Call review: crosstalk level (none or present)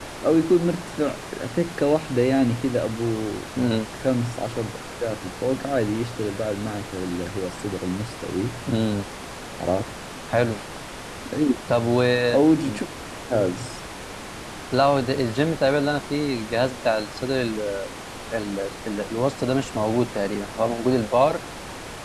none